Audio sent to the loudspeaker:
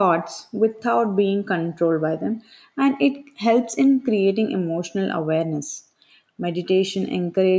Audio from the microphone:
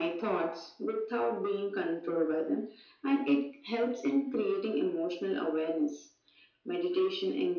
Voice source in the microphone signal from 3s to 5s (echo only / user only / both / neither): echo only